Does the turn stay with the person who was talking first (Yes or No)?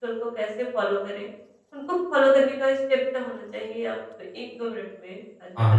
No